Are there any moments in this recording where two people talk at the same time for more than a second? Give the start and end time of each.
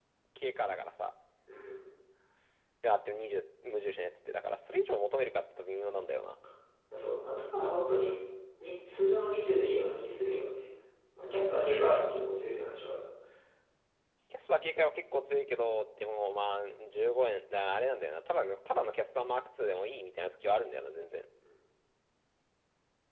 none

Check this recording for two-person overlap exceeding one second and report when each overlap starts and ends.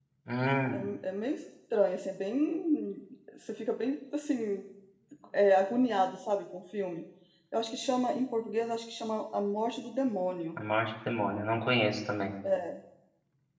none

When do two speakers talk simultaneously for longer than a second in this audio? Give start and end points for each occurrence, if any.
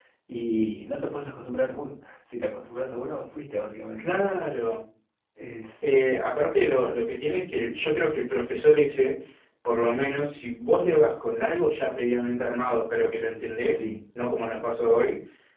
none

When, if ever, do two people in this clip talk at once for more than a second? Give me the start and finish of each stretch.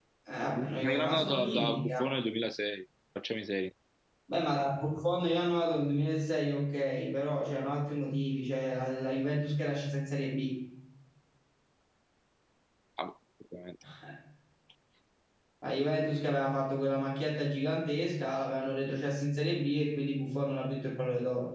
0.6-2.0

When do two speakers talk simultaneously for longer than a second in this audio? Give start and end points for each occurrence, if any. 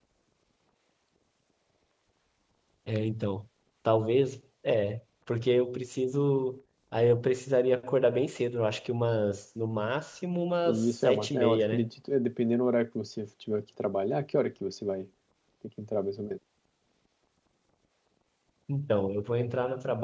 10.7-11.9

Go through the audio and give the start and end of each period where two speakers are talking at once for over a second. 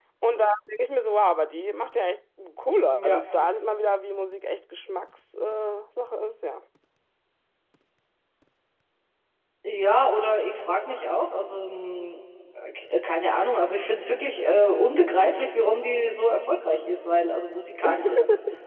none

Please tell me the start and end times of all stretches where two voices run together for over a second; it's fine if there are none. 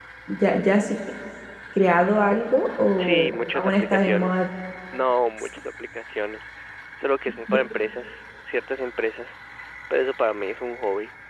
3.0-4.4

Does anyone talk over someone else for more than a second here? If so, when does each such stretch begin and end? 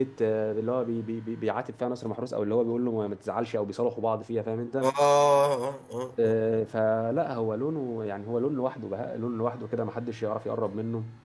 none

